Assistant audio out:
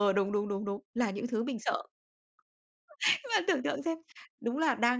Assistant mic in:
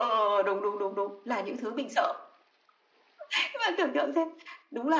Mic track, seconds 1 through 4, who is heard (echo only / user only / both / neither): echo only